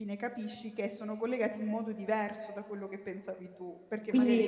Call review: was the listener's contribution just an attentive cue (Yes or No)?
No